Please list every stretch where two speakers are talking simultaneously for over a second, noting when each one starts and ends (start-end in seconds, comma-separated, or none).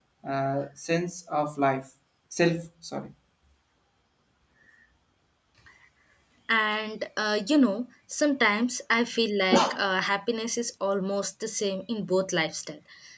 none